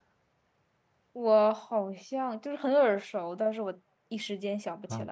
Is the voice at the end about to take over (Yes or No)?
Yes